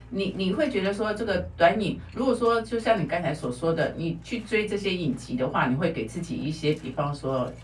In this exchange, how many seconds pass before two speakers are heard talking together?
none

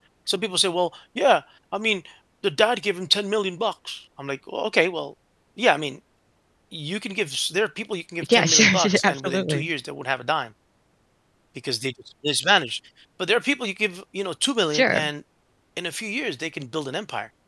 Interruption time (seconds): 8 s

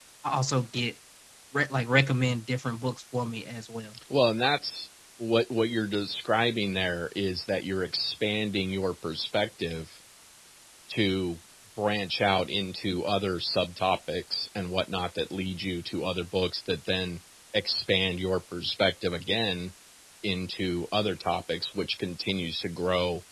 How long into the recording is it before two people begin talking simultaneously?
none

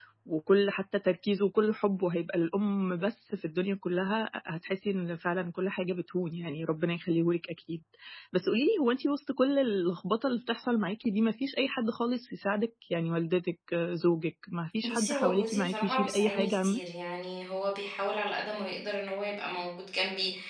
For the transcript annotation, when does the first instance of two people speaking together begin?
15 s

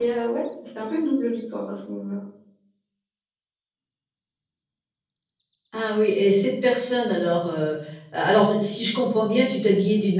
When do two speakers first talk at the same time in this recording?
none

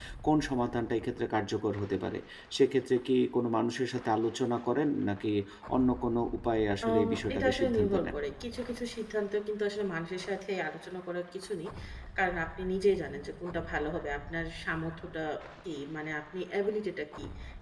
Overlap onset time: 7 s

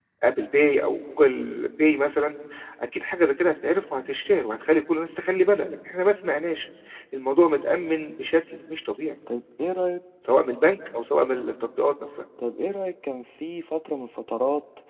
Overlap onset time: none

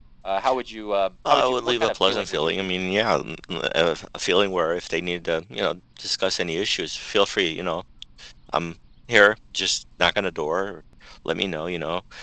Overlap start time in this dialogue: 1 s

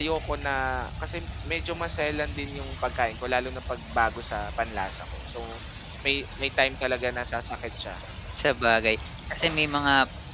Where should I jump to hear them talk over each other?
none

